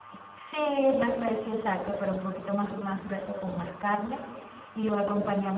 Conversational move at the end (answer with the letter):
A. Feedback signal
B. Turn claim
A